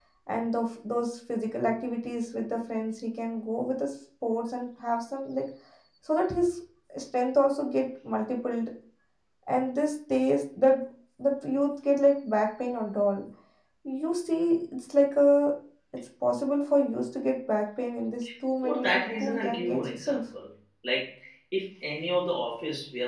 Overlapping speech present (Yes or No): Yes